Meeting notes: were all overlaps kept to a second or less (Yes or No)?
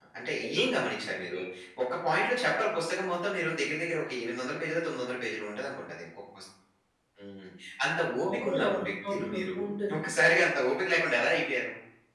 No